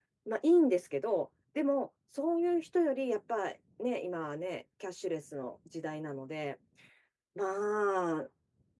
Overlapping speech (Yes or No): No